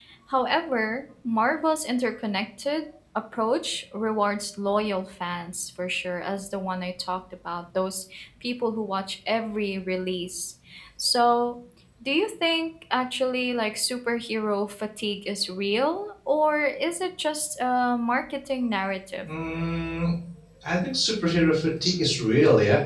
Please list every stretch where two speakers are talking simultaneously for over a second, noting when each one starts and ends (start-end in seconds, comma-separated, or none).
none